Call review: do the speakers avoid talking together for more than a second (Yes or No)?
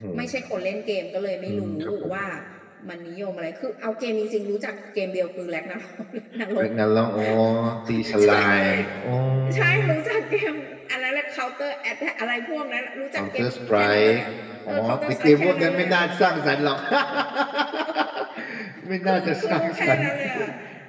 No